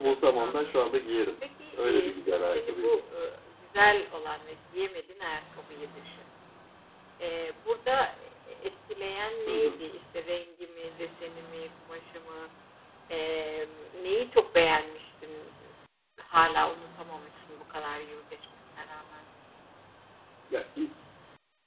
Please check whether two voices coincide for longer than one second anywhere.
Yes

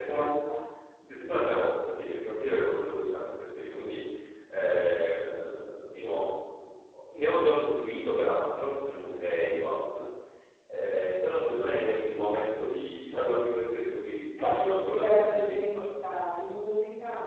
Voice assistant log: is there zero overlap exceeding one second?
No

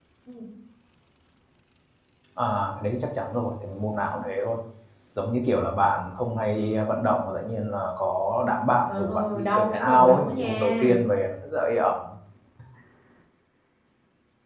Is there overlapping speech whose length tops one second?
Yes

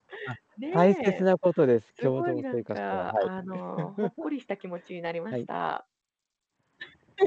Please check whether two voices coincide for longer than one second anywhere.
Yes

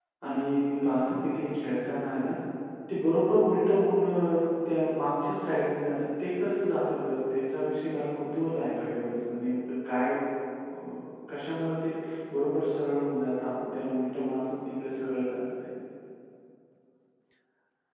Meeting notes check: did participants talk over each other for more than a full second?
No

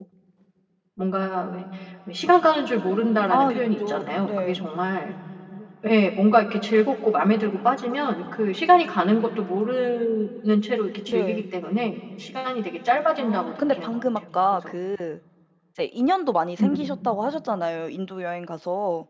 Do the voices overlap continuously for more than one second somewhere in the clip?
Yes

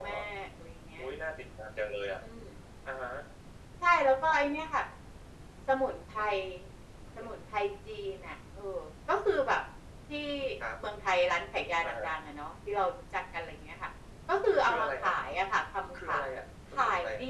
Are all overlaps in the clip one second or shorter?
Yes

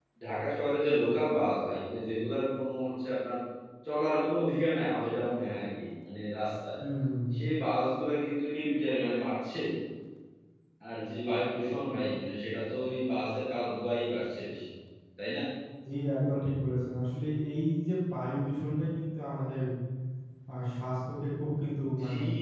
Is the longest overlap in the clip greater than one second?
No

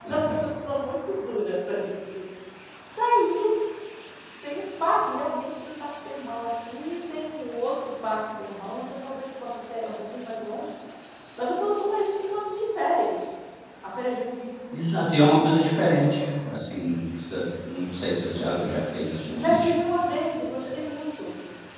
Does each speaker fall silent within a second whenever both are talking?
Yes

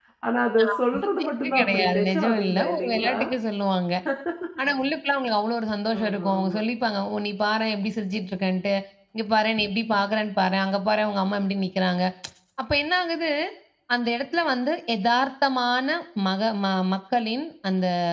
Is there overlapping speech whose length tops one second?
Yes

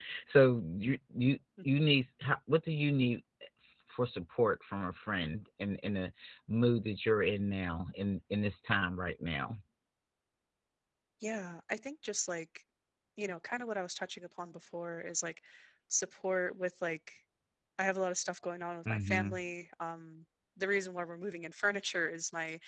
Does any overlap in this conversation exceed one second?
No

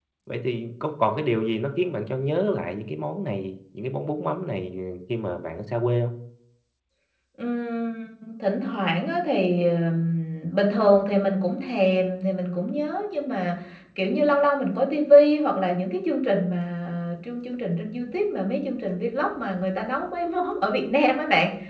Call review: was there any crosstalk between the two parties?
No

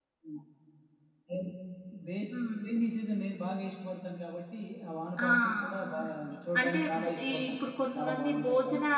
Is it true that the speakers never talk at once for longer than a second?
No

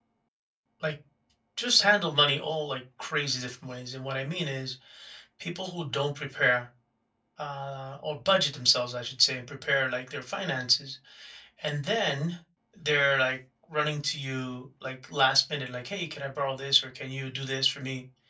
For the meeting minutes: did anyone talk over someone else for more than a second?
No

